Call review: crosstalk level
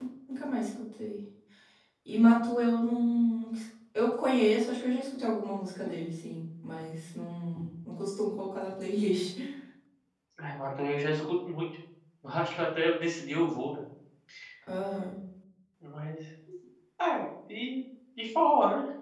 none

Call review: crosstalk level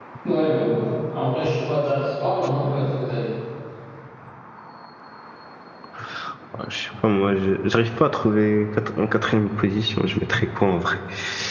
none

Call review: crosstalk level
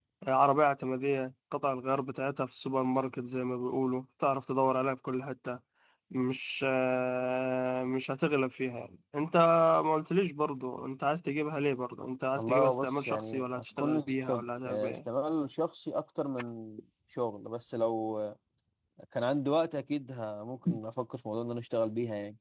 present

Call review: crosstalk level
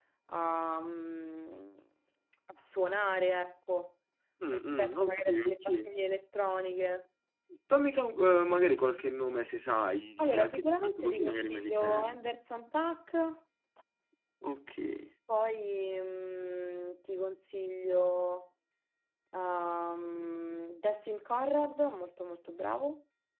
present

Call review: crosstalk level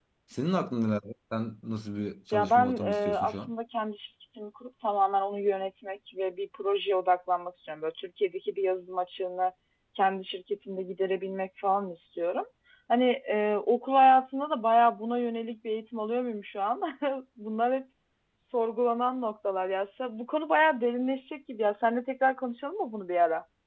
present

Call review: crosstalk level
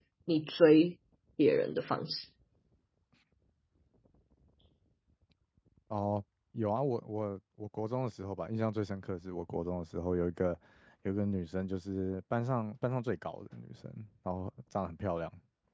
none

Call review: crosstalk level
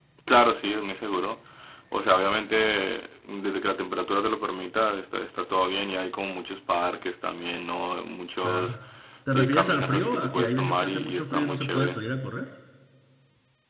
present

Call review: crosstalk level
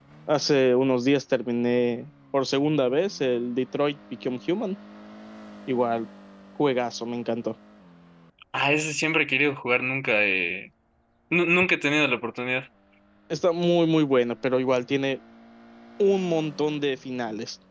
none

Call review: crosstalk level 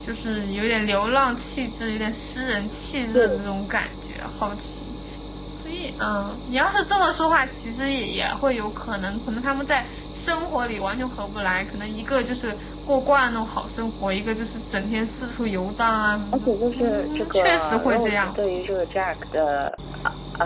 present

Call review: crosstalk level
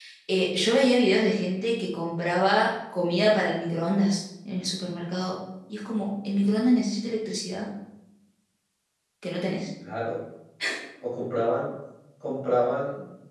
none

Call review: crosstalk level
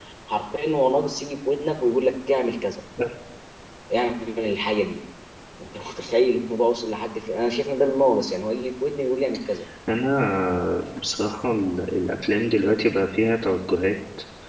none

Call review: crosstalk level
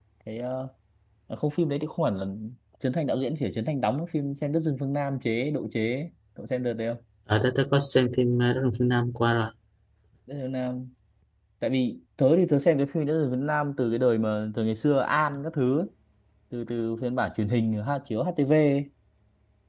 none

